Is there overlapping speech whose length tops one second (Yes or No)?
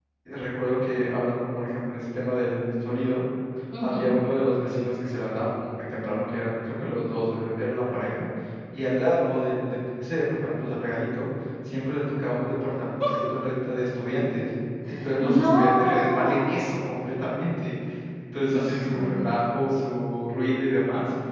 Yes